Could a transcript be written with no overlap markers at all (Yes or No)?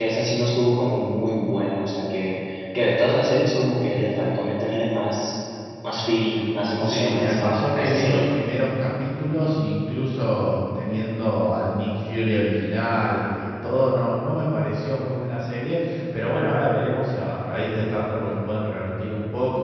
No